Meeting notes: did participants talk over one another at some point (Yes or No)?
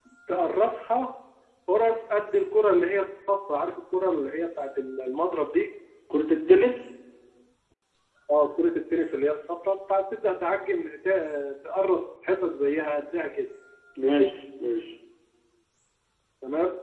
No